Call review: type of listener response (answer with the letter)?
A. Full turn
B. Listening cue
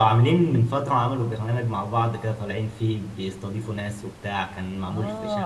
A